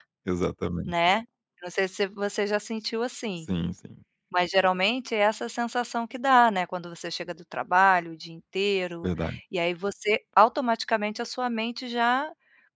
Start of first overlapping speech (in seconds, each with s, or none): none